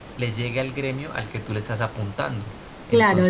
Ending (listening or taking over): taking over